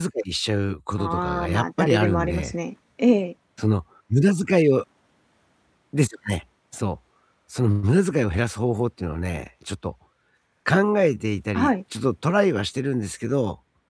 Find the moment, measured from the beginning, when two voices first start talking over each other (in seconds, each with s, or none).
1.0 s